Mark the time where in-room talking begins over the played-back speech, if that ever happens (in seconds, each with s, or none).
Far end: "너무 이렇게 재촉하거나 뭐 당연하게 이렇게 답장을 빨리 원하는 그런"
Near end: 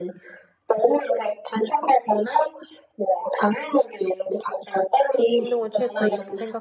5.4 s